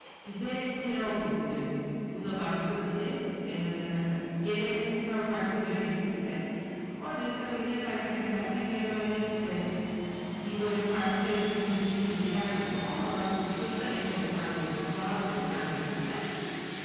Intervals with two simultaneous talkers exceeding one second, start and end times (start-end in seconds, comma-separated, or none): none